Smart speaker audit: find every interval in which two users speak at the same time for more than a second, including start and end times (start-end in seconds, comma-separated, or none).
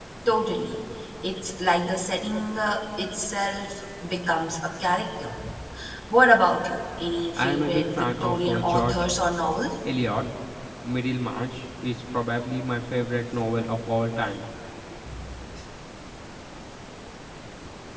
7.4-9.1